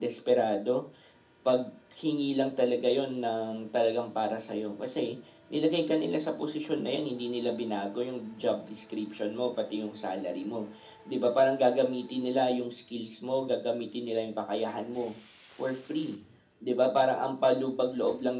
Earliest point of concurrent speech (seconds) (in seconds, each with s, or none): none